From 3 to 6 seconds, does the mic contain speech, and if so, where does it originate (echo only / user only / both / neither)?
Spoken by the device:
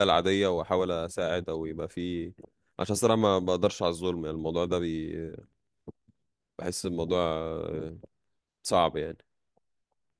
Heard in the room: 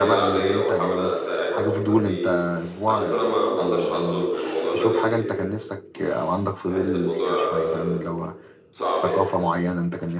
both